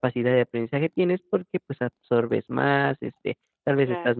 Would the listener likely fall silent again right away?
Yes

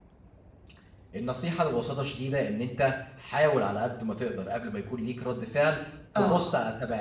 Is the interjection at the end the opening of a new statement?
No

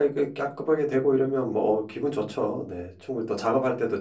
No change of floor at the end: Yes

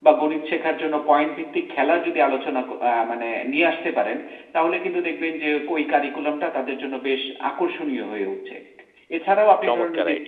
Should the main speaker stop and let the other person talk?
No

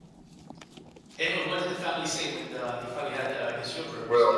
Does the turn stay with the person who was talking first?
No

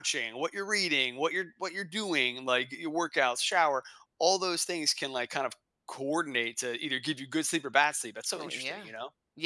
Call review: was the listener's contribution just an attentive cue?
No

